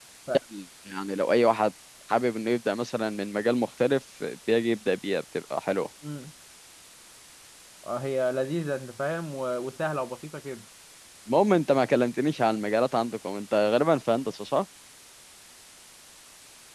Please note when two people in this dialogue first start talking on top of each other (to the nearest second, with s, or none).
none